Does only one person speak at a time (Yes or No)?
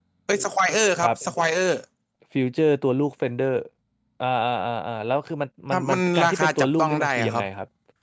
No